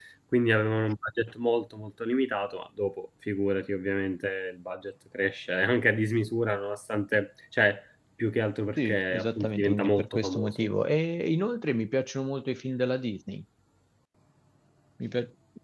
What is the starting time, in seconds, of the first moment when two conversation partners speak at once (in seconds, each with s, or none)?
8.8 s